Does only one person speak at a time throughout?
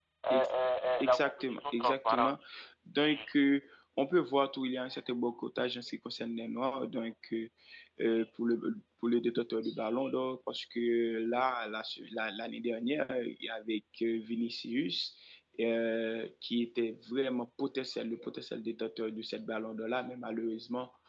No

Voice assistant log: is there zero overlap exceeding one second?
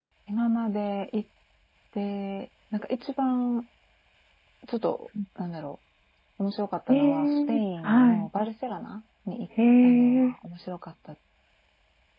No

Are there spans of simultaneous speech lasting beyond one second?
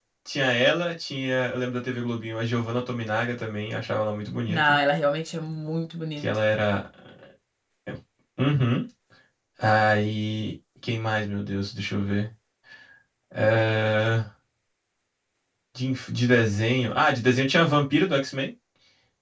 No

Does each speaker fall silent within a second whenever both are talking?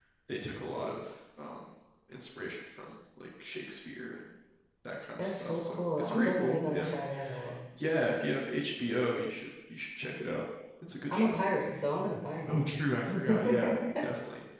No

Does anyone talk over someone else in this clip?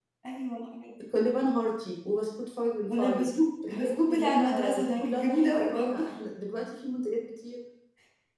Yes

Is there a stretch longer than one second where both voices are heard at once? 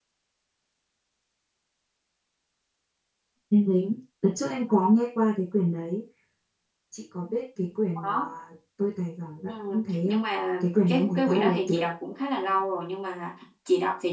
Yes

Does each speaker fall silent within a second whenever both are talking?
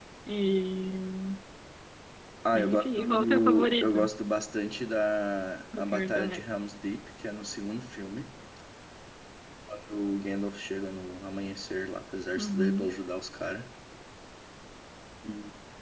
No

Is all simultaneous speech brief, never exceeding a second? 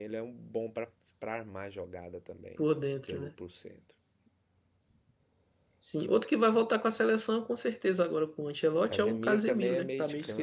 No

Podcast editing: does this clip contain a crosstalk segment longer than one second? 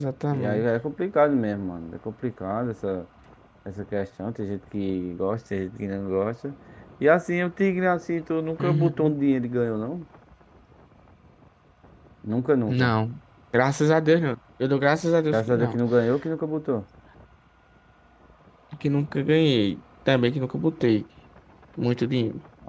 No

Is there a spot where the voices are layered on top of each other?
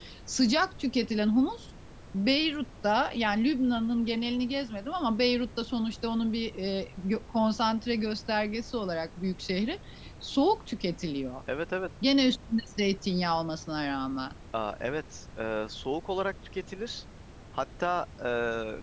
No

